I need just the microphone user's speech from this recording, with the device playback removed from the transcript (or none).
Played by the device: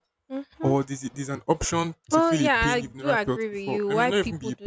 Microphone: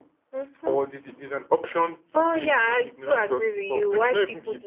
none